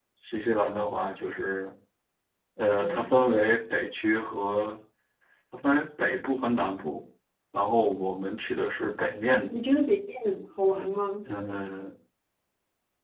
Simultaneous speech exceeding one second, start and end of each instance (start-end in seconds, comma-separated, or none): none